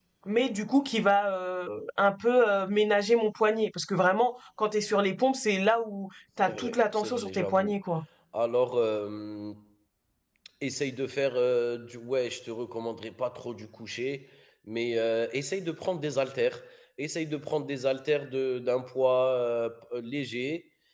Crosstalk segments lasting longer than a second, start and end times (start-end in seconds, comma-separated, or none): 6.5-7.7